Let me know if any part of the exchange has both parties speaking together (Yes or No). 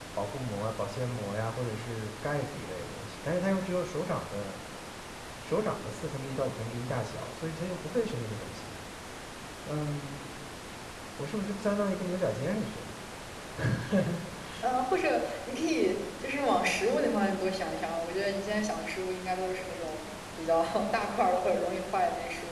No